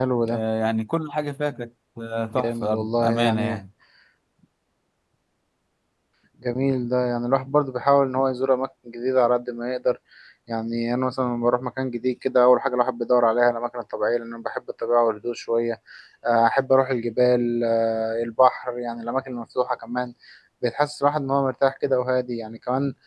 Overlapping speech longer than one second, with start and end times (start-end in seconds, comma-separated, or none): 2.3-3.6